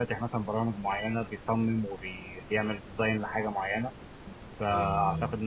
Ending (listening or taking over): listening